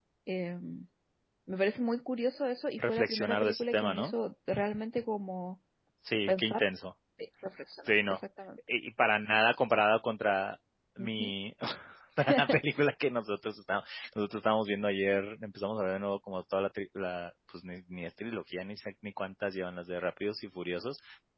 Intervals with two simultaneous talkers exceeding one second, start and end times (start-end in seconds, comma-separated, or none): 2.8-4.1